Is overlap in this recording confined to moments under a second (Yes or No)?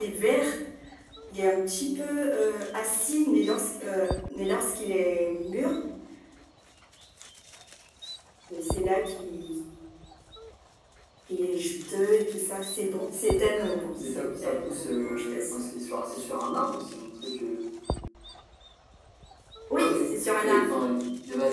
No